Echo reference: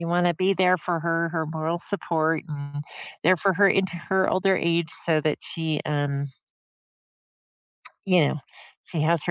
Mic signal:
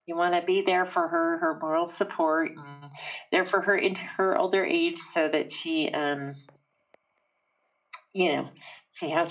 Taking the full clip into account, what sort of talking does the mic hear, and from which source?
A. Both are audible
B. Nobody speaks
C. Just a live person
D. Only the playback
D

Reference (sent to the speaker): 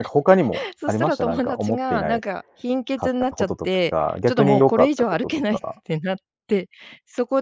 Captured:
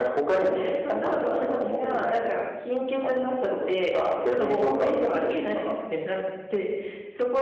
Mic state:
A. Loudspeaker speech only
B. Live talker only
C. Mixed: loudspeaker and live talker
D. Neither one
A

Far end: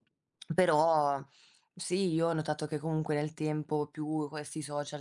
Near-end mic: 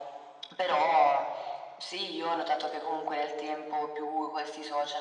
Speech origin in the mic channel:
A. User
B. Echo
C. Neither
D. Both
B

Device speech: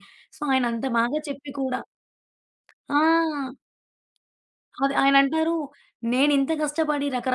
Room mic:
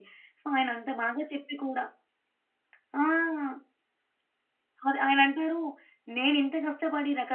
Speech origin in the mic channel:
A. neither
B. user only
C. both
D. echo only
D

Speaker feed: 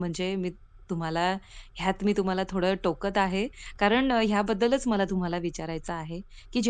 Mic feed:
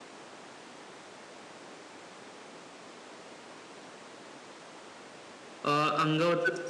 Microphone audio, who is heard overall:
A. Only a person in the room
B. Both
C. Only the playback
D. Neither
A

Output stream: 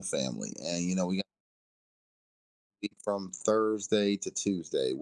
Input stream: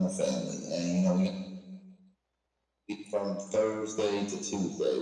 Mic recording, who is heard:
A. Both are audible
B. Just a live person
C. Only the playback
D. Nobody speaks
C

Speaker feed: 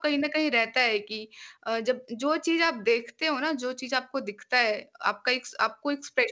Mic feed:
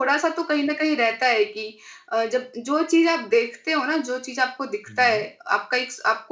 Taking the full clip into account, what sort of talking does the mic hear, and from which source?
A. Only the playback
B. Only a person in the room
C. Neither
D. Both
D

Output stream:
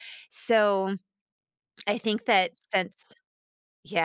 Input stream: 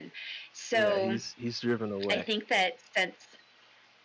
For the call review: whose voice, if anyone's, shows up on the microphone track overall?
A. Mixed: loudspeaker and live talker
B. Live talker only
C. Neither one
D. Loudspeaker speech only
A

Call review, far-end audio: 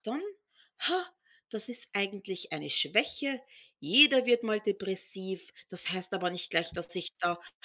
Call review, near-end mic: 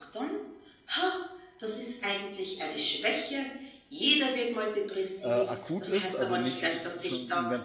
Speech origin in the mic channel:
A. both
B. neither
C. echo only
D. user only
A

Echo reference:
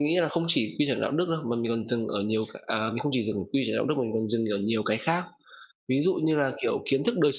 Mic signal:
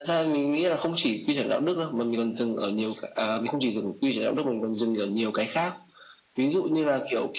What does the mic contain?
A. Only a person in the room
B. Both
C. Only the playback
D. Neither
C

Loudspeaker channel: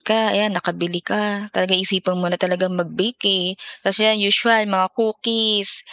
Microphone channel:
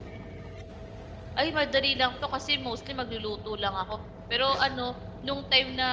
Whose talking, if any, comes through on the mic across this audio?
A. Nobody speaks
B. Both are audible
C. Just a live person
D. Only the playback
C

